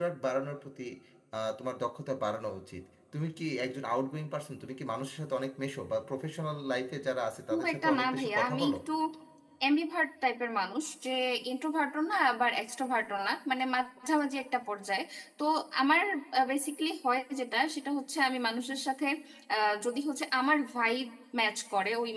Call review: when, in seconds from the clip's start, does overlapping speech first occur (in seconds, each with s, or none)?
7.5 s